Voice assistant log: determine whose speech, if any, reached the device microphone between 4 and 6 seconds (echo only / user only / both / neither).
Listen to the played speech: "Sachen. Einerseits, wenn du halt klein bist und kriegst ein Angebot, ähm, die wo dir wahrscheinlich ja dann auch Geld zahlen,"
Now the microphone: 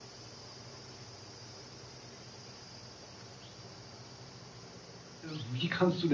user only